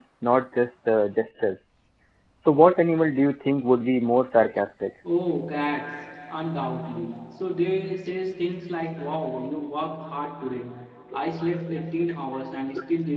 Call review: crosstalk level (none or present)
none